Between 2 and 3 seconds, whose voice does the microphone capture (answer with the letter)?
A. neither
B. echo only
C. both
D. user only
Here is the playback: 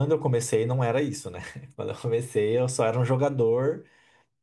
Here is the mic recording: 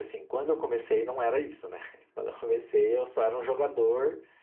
B